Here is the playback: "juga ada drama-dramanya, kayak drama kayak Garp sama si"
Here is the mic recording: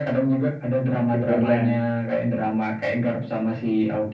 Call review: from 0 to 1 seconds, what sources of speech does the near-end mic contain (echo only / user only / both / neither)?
echo only